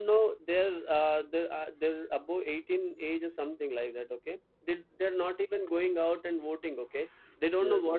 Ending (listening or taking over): listening